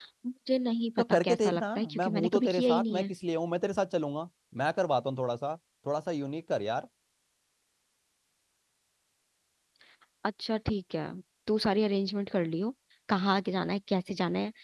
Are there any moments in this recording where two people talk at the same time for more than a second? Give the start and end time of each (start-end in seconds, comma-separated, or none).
1.0-3.1